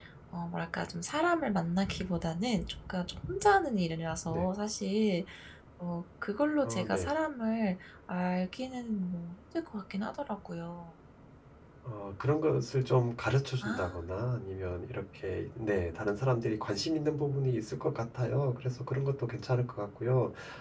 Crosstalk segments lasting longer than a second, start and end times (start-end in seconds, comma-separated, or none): none